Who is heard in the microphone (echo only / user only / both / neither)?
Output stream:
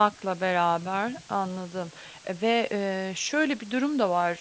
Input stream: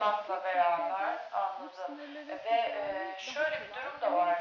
both